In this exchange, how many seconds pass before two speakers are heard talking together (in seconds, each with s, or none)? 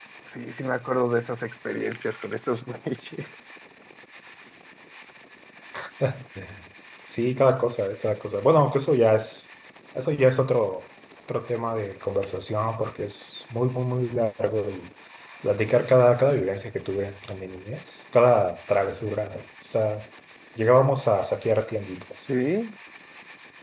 none